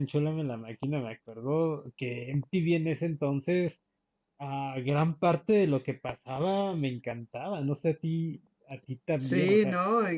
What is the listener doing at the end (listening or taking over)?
taking over